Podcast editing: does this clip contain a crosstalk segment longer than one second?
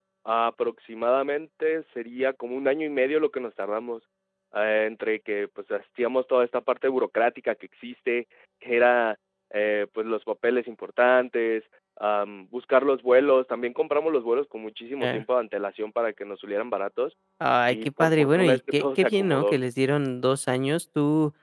Yes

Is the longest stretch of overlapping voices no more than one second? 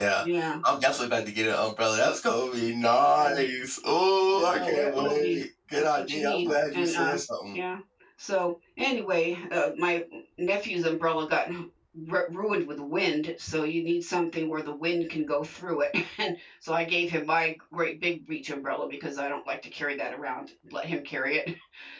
No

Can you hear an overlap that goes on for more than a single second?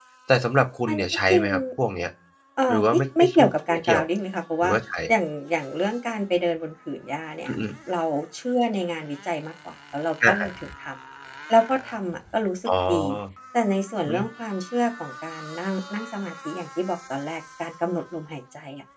Yes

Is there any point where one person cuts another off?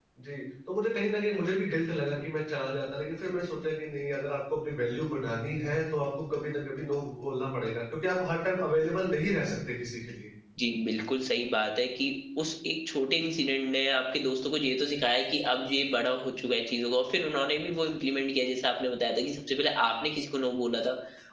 No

